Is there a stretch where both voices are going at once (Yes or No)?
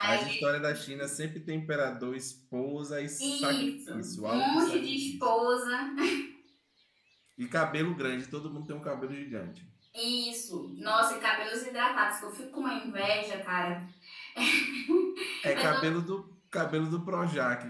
Yes